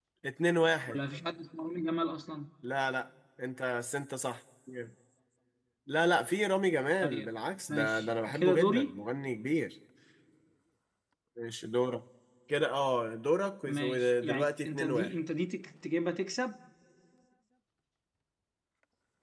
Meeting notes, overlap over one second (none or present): present